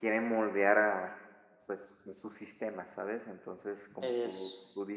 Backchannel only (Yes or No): Yes